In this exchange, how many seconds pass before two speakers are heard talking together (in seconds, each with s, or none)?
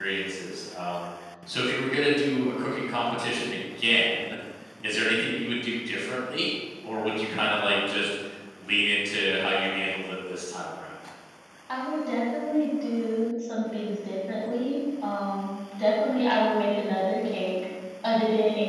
none